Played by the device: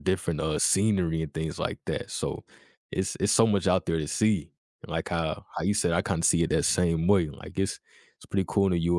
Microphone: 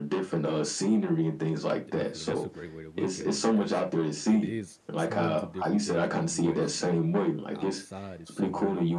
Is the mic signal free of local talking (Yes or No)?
No